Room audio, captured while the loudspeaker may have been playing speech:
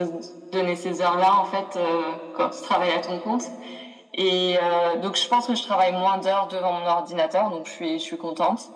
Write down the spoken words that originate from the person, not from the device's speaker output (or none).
none